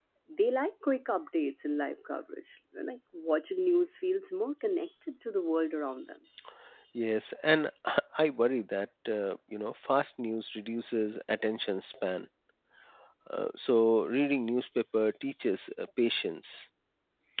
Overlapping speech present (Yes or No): No